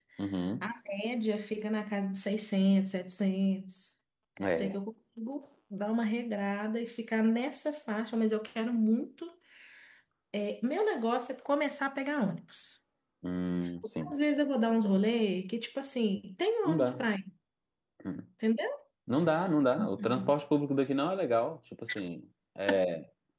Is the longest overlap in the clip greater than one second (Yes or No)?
No